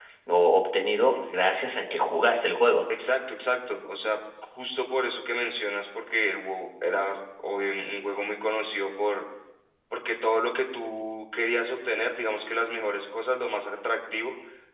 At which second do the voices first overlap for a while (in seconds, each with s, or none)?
none